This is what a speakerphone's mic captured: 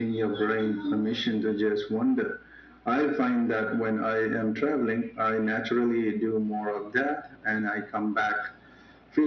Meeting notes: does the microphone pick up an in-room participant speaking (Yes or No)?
No